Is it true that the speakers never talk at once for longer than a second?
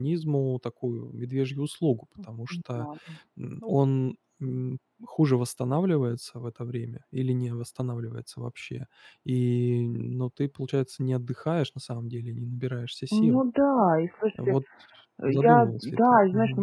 No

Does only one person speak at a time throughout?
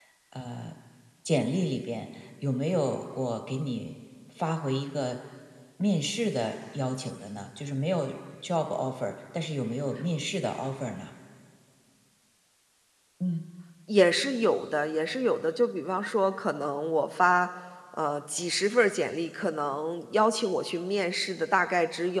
Yes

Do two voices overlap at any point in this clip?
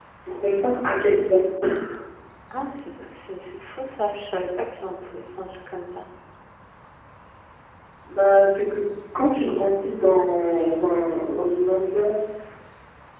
No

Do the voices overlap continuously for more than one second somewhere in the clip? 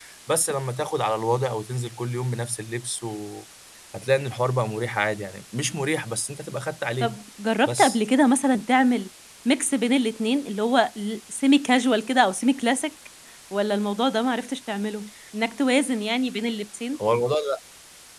No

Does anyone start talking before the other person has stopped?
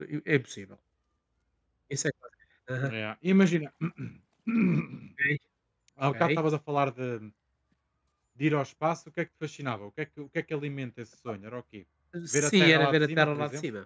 Yes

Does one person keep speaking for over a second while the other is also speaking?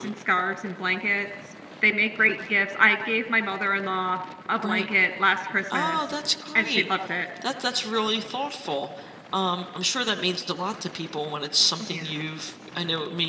No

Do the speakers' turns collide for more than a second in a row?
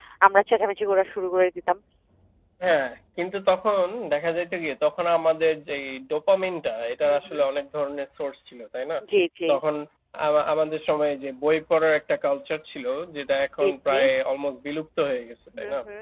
No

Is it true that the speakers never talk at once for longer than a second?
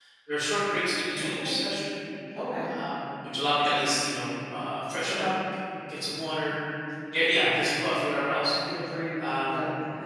Yes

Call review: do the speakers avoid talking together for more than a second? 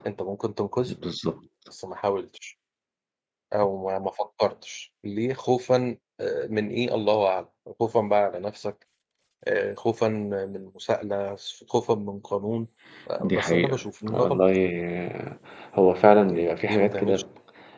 No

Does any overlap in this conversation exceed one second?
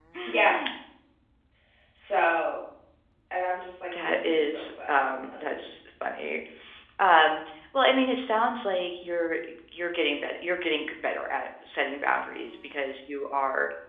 Yes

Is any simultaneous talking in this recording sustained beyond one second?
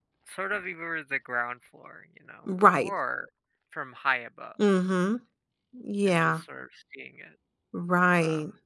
No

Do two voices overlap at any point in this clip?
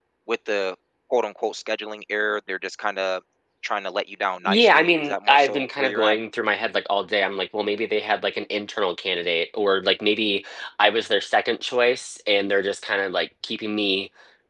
Yes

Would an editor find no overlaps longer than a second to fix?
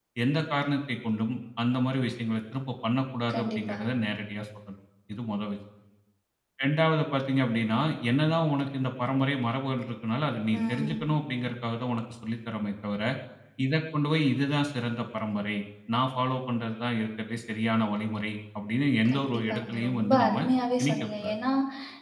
No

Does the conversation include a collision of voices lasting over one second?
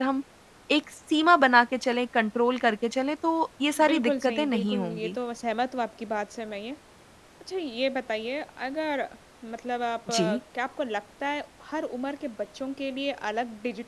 Yes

